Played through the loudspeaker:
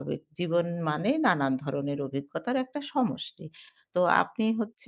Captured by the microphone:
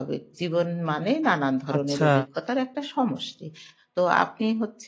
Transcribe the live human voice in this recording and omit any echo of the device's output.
আচ্ছা।

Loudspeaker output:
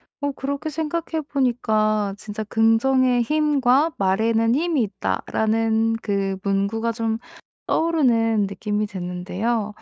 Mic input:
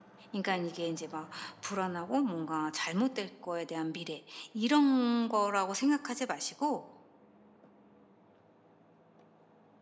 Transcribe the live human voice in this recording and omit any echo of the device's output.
그러니까 네. 이게 이제 막 불안하고 뭔가 잘못될 거에 대한 미래 이런 거라고 생각하지 마시고

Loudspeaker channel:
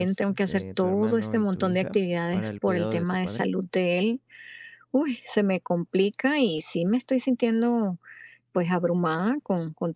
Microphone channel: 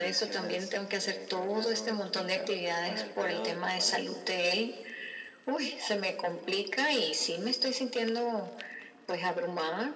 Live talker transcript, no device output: none

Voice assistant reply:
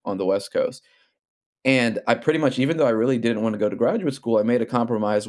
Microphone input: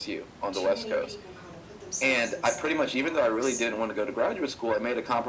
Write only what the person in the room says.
too many people kinda put themselves inside of a box,

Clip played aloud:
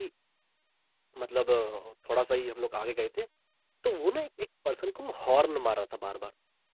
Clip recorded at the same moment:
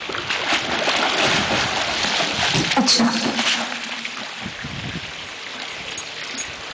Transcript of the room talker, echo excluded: अच्छा,

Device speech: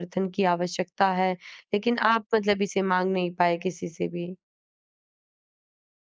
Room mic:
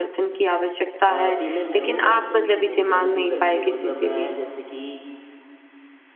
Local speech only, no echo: अ, फीमेल है वो वैसे तो मुझसे बहुत ज़्यादा दूर रहती है मतलब मैं जैसे कि

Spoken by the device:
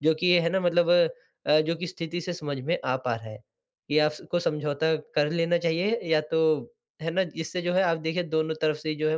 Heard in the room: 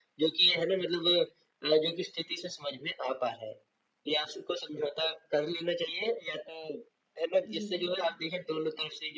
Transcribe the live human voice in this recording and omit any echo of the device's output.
जी,

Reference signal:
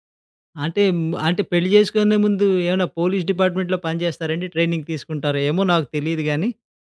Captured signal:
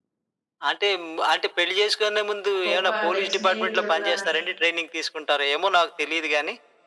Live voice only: గొప్ప లైక్ స్నేహితుడు గాని,

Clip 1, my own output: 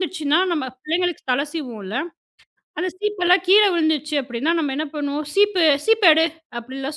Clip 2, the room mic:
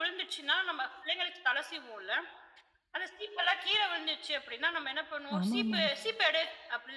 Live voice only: ஆமாமா.

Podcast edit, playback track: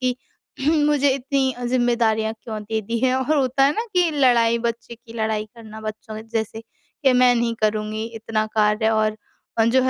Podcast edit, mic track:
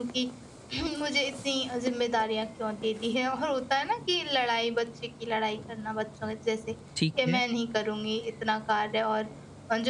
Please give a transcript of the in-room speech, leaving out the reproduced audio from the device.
ठीक है।

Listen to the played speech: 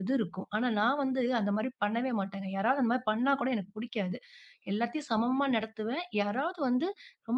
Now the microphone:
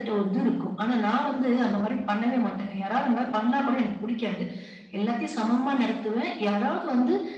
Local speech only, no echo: none

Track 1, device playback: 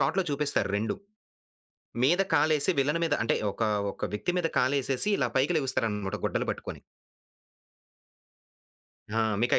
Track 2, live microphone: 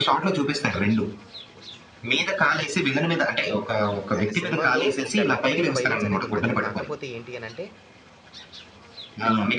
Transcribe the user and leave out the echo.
ఆయన సినిమాల్లో ఒక రకమైన వయలెన్స్ అనేది ఉంటది. కాకపోతే ఏంటి అనంటే

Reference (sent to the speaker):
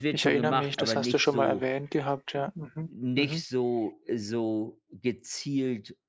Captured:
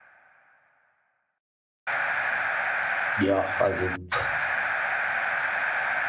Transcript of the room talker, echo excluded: ja, also, pff,

